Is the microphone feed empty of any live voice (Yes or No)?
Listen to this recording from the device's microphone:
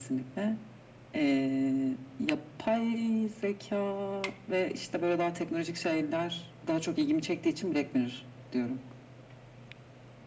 Yes